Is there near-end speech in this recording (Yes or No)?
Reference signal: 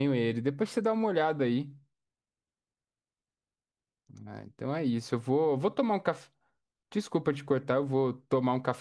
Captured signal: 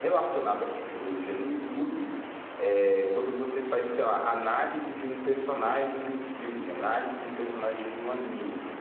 Yes